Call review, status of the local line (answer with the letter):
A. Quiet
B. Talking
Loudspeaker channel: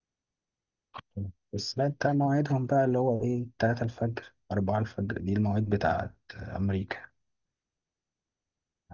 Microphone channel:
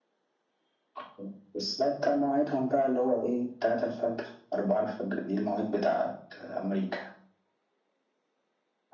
A